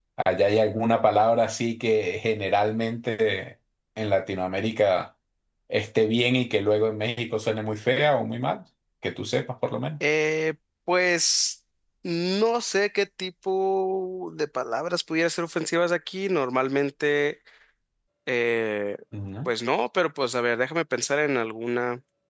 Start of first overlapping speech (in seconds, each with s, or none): none